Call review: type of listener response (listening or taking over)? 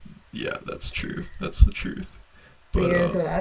taking over